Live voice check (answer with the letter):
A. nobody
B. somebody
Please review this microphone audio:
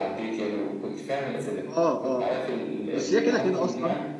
B